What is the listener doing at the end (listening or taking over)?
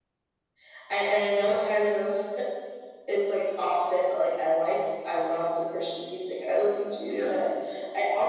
listening